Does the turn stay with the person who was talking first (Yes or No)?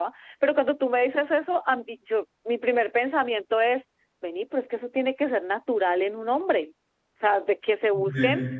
Yes